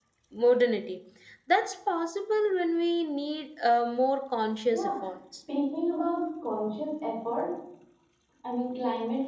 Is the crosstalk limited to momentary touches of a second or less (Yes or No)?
Yes